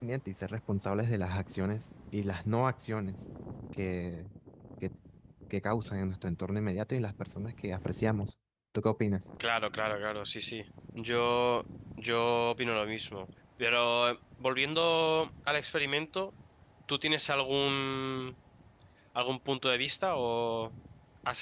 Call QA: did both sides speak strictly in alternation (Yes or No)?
Yes